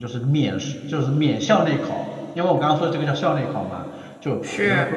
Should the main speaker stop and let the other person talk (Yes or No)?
No